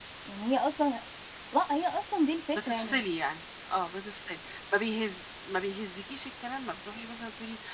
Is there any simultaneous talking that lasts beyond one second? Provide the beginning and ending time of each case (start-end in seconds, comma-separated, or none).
none